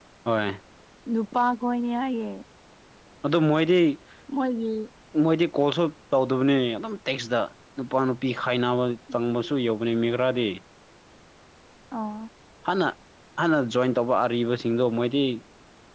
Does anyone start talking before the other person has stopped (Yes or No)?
No